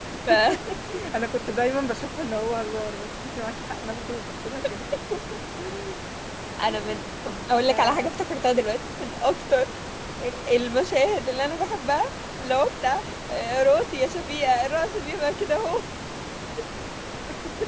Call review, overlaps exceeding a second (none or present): none